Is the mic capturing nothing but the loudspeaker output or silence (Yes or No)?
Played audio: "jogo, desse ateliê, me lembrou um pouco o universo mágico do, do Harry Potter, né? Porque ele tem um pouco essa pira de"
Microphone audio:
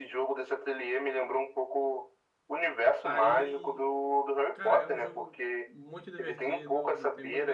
No